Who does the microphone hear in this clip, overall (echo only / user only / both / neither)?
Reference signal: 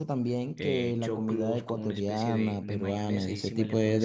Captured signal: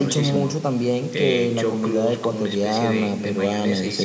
echo only